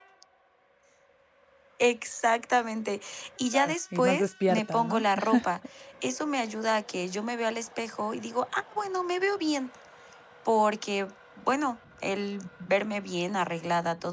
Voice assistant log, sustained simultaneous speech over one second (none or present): present